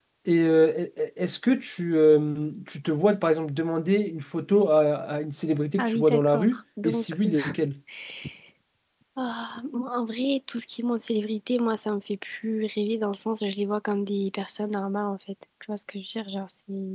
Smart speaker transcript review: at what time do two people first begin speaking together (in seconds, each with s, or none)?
5.8 s